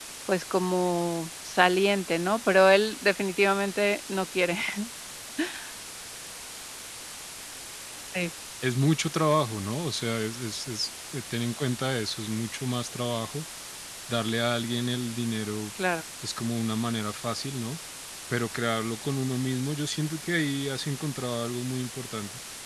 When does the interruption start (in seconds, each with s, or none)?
none